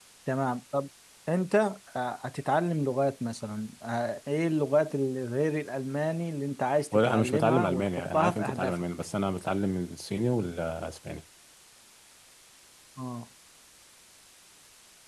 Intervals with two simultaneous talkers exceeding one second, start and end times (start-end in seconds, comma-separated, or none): 6.9-8.8